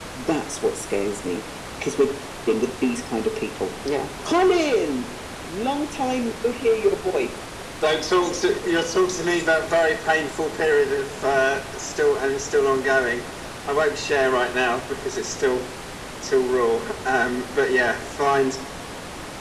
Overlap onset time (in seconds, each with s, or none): none